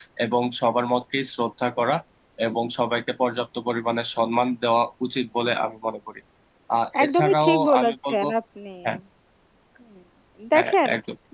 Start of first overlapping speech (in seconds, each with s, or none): 7.0 s